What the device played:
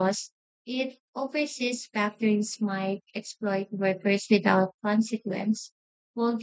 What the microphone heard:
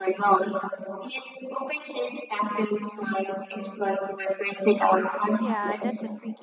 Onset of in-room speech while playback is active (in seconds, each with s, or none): 5.4 s